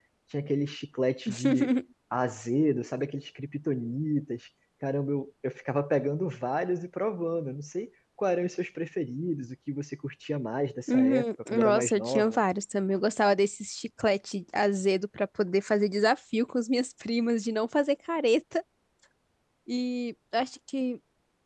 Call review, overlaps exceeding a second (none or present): present